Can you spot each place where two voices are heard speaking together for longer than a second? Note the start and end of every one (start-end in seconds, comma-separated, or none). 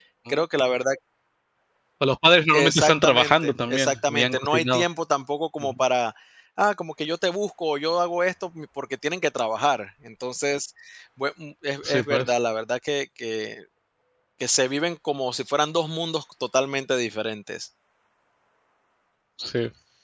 2.5-4.8